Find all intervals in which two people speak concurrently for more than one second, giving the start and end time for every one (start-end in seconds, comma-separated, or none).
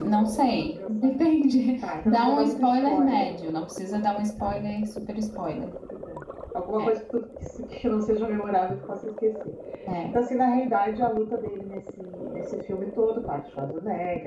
2.0-3.3